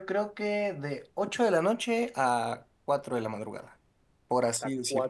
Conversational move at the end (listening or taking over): taking over